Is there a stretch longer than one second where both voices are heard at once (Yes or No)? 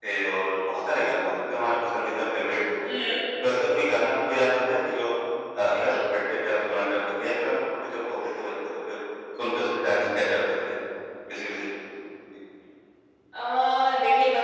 No